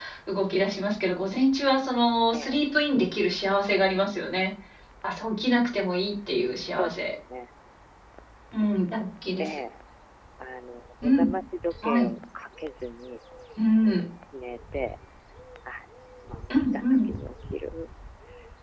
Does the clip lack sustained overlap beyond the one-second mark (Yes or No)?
Yes